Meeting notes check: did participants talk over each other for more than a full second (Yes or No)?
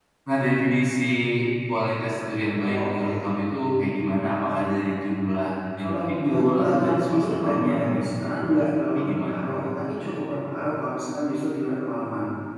Yes